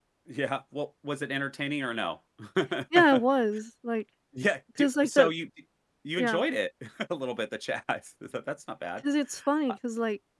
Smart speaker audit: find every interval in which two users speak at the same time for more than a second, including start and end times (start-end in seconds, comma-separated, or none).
none